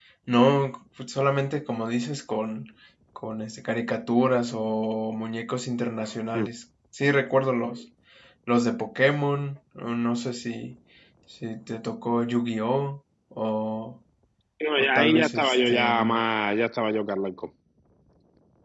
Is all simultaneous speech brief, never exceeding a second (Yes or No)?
No